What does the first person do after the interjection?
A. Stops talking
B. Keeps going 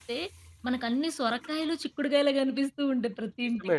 A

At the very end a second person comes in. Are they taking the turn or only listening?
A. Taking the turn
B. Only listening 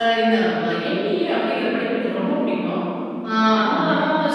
B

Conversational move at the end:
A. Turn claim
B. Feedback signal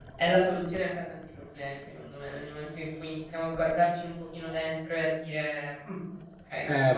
B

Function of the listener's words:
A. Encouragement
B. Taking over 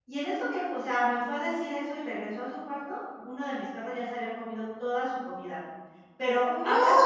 A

